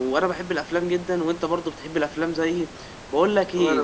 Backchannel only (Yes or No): Yes